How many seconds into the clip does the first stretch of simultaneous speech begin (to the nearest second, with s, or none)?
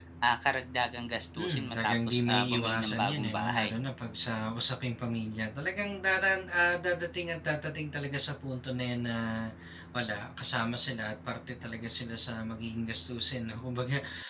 1 s